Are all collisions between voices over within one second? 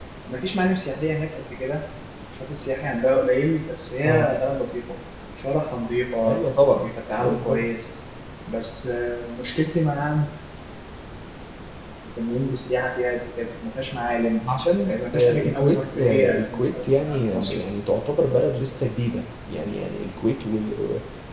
No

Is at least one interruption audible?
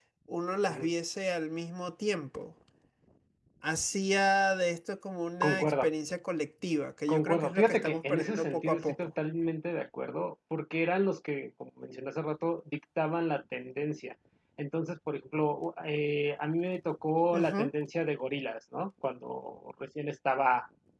Yes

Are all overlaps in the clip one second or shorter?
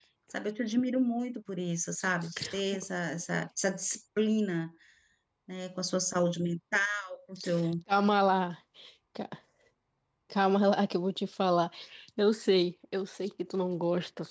Yes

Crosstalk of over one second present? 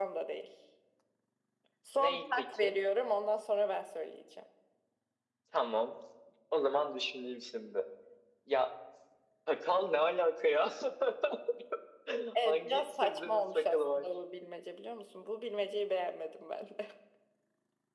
Yes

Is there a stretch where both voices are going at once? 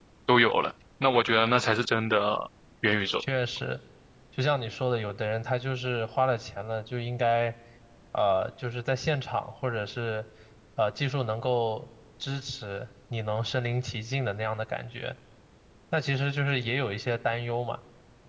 No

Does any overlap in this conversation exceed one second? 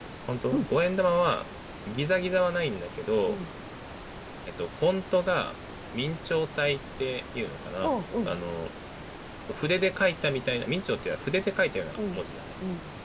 No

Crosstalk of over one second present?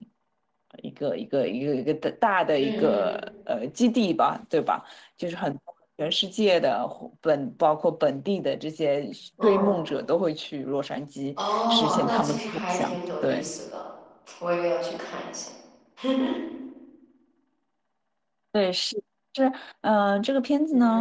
Yes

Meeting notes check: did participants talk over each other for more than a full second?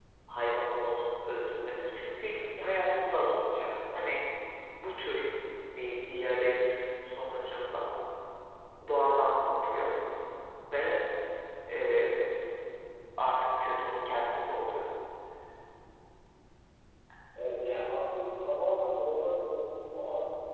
No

